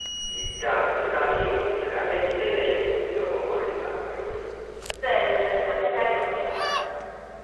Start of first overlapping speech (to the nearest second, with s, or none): none